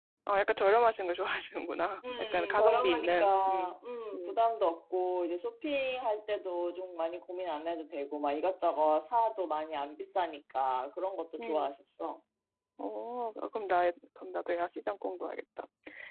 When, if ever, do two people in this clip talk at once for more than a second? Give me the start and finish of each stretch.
2.3-3.8

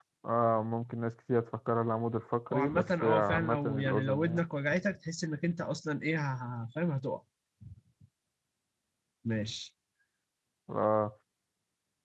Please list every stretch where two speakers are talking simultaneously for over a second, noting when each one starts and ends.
2.5-4.4

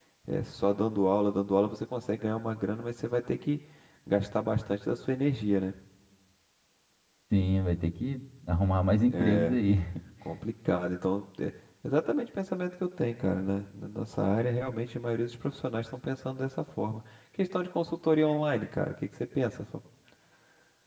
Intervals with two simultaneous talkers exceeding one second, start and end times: none

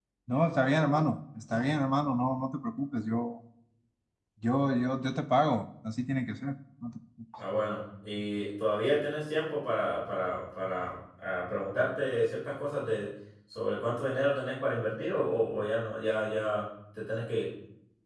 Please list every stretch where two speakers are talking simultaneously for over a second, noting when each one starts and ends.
none

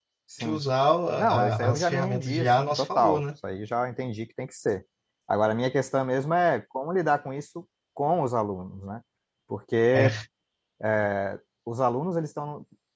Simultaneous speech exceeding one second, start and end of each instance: 1.2-3.2

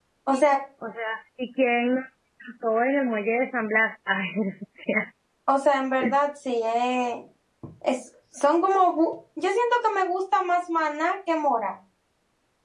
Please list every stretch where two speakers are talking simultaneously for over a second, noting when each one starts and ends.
none

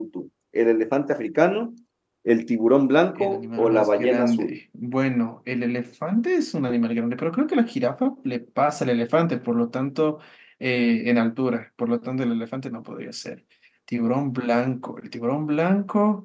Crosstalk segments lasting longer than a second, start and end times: 3.2-4.6

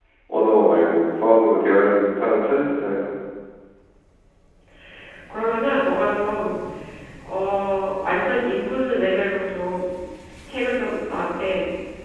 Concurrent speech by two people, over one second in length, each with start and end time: none

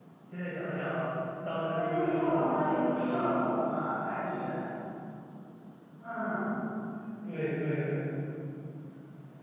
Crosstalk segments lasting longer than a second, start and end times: 1.7-3.2

